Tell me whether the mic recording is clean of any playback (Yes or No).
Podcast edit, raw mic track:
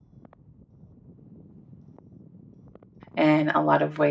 Yes